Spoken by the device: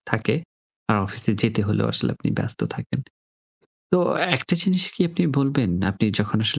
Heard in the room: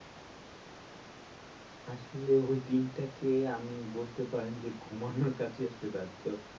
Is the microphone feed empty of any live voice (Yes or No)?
No